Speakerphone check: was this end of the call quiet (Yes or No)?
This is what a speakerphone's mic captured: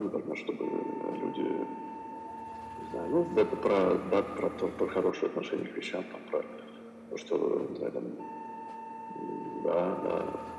Yes